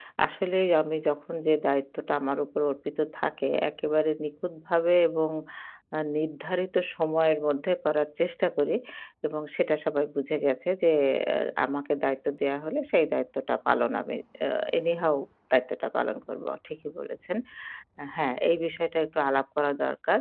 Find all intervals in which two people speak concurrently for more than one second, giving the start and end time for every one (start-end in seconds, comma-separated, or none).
none